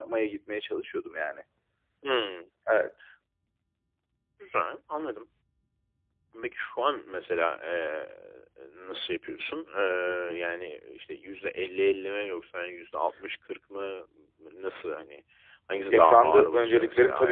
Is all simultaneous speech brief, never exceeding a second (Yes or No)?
No